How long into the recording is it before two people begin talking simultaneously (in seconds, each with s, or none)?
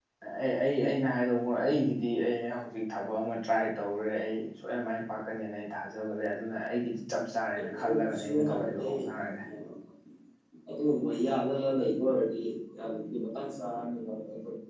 7.6 s